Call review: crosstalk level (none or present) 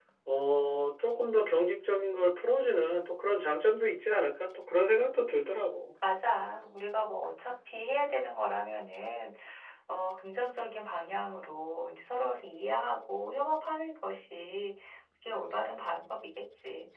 none